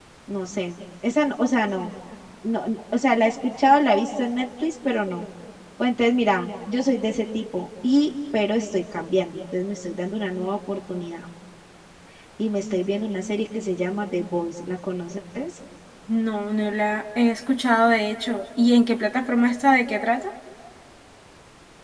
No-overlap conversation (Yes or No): Yes